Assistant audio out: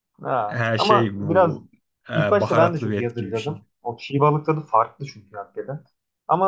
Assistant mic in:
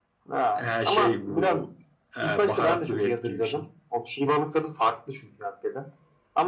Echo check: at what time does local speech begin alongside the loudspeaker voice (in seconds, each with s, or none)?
none